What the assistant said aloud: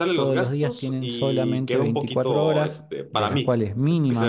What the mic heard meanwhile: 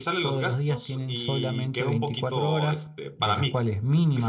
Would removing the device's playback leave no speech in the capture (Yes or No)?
Yes